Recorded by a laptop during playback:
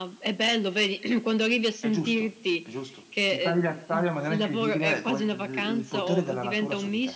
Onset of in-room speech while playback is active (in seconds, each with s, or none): 1.8 s